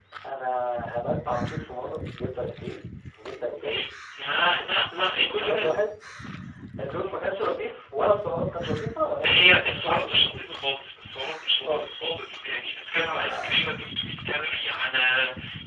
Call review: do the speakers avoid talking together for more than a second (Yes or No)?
No